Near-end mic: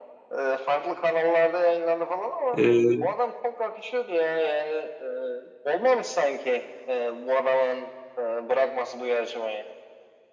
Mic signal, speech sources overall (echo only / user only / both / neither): both